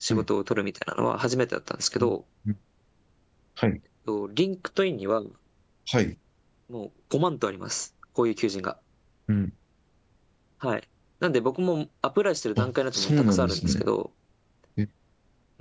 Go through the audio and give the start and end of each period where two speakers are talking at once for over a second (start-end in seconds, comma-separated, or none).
12.6-13.8